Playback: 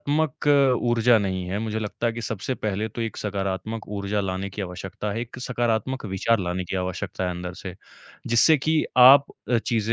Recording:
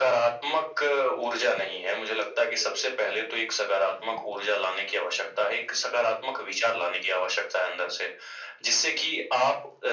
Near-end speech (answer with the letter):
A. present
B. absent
B